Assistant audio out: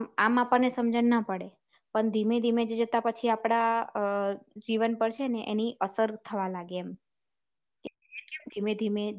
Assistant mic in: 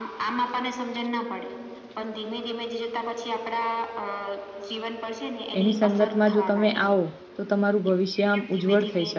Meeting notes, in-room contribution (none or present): present